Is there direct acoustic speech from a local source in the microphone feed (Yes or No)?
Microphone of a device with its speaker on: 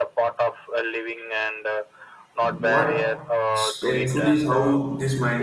Yes